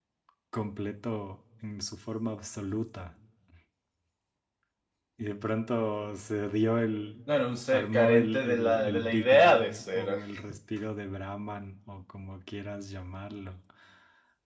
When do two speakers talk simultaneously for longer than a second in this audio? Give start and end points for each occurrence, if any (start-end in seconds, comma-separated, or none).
7.7-10.2